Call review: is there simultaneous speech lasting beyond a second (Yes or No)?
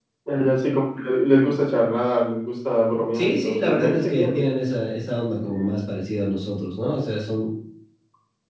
Yes